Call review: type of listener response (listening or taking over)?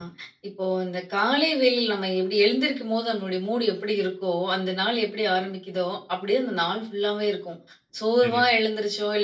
listening